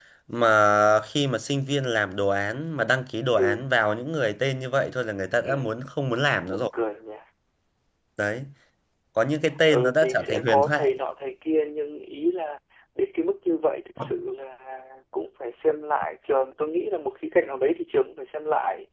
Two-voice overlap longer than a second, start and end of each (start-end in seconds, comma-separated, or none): 9.7-10.9